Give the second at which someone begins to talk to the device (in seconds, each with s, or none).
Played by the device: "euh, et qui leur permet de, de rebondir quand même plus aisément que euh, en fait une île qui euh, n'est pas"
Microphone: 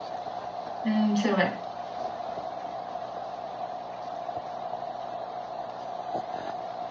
0.8 s